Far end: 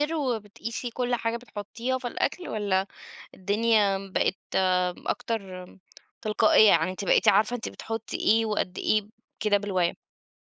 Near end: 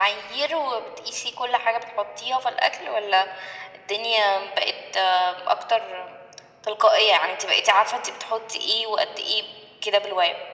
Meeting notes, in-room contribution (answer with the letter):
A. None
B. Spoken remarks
A